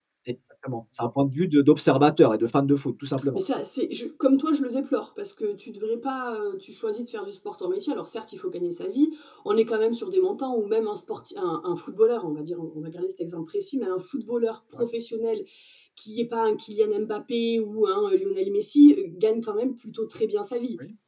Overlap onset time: none

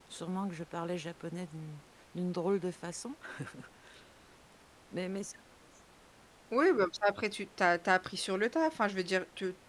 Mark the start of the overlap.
none

